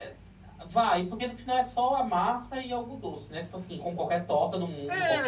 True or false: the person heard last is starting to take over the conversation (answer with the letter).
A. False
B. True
B